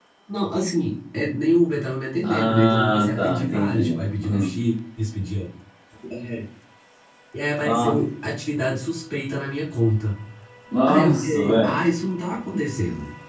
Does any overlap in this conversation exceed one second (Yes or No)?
Yes